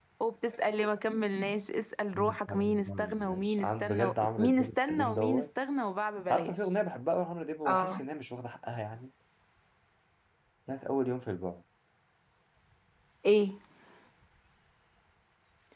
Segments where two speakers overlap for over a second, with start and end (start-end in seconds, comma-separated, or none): 2.1-5.4